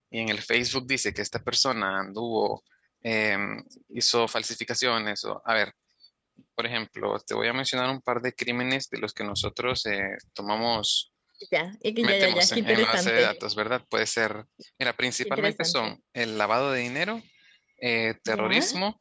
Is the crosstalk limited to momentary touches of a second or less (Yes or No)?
No